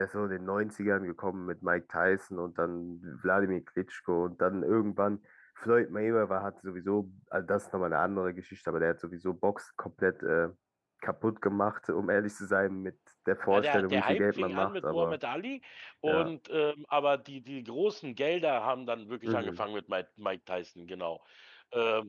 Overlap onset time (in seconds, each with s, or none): 13.5 s